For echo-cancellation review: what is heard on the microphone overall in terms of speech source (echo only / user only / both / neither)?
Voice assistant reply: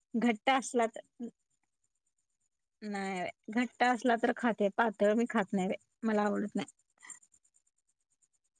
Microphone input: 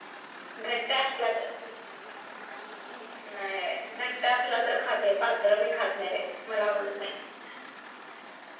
echo only